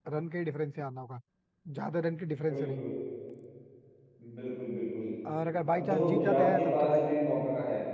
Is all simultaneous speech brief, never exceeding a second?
No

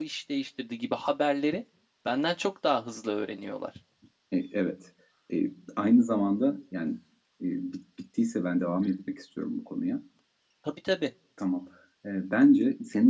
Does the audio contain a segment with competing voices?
No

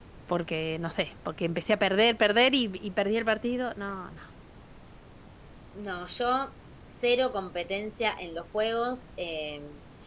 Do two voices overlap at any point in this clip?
No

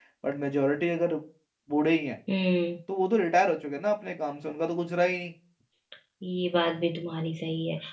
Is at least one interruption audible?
No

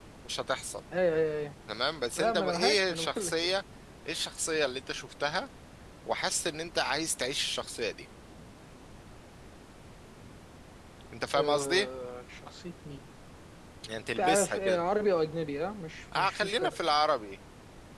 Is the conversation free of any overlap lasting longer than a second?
No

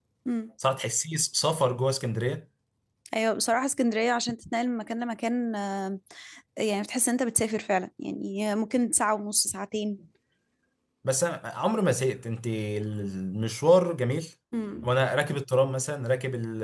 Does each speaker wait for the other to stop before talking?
Yes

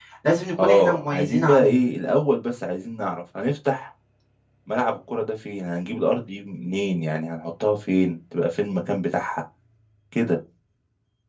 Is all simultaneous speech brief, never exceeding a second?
No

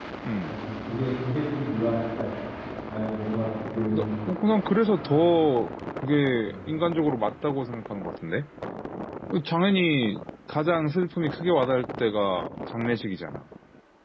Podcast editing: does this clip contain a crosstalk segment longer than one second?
No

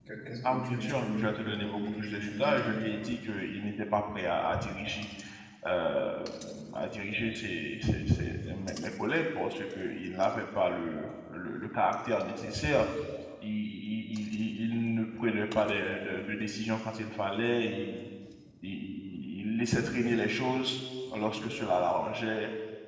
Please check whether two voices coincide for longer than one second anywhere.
Yes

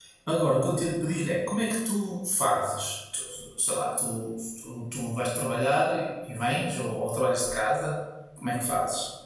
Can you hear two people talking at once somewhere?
No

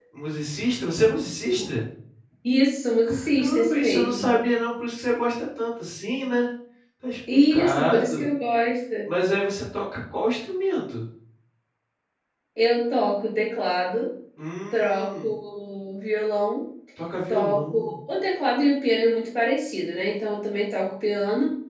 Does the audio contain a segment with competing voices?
Yes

